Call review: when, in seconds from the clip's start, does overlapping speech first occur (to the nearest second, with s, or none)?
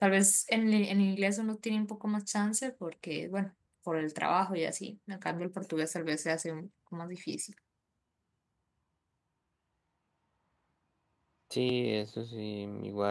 none